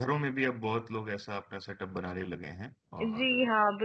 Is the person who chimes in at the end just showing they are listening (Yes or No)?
No